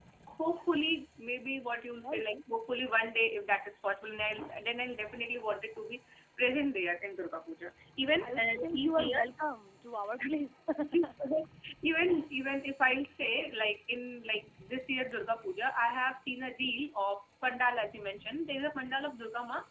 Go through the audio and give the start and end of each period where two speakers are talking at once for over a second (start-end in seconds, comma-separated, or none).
8.0-9.2